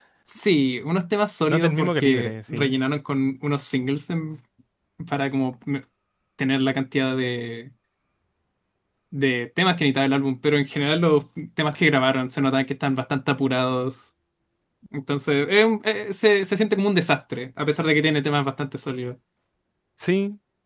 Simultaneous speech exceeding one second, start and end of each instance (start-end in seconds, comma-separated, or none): 1.5-2.7